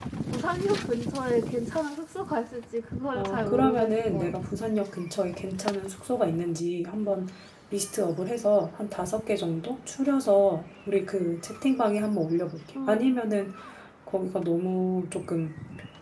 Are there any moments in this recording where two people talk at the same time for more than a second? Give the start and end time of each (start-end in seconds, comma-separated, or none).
3.1-4.3